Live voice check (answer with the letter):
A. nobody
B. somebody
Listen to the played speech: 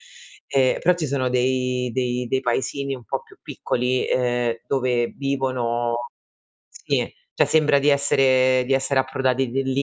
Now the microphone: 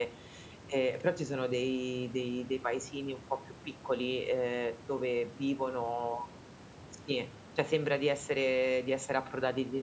A